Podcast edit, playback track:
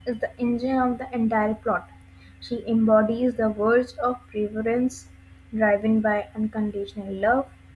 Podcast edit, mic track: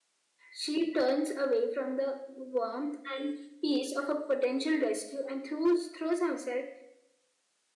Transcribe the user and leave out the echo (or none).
she turns away from the warmth and peace of a potential rescue and throws, throws herself